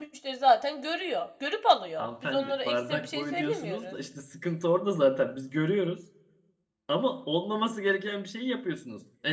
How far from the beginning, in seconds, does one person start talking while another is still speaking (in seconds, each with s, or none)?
2.0 s